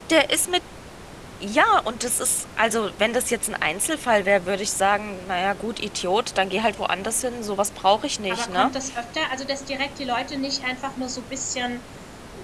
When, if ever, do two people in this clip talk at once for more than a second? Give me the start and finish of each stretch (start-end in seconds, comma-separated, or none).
none